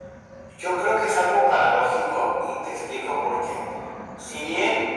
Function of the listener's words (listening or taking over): listening